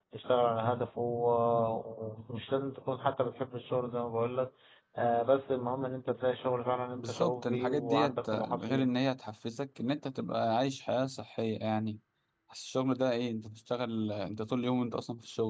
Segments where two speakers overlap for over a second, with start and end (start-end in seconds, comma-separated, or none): 7.0-8.9